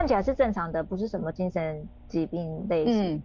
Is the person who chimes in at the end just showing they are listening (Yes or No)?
No